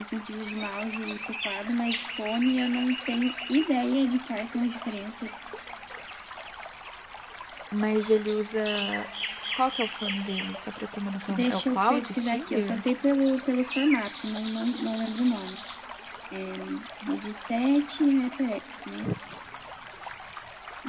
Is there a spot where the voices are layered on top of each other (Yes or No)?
Yes